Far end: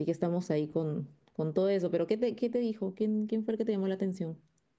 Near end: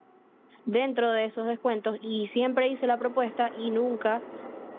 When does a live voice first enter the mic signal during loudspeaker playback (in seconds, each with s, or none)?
0.6 s